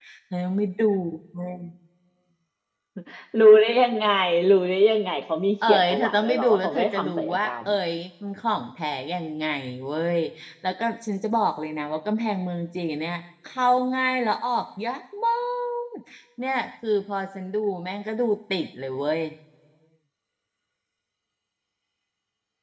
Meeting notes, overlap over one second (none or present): present